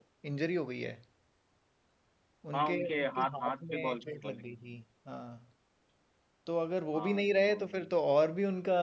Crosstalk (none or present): present